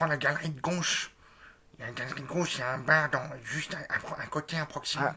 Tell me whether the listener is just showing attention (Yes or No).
No